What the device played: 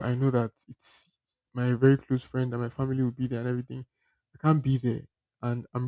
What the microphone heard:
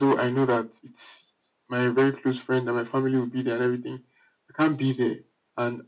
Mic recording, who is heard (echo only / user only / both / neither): echo only